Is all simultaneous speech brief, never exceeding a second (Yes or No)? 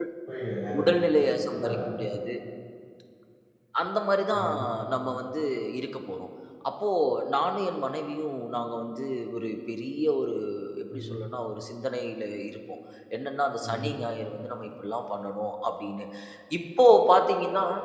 Yes